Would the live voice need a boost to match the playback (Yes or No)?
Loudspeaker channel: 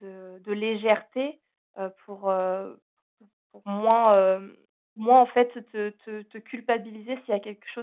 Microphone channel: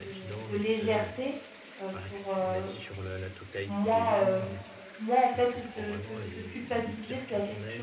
Yes